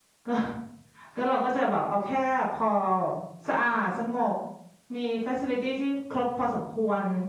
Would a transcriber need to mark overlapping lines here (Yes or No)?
No